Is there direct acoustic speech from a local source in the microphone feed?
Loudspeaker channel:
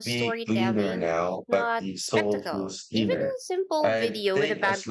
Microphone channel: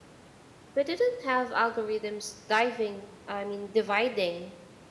Yes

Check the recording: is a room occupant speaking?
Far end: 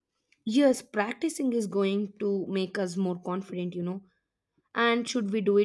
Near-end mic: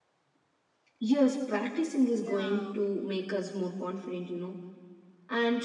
Yes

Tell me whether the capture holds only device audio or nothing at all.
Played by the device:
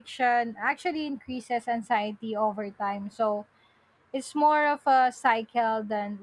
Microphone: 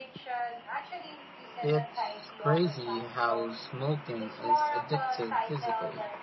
No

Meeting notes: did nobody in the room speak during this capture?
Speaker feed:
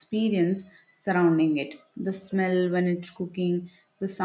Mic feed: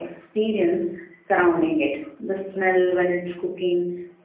Yes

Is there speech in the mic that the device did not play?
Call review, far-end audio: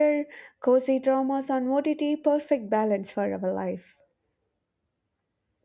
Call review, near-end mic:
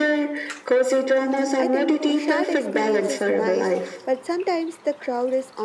Yes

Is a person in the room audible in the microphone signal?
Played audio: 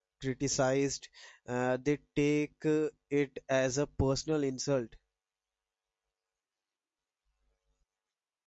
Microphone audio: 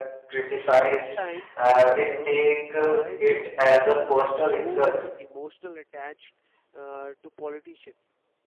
Yes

